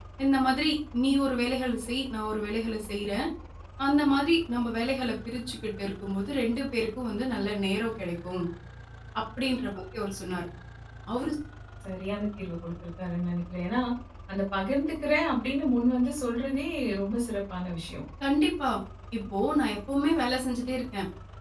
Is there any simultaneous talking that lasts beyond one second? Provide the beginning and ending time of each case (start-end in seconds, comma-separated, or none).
none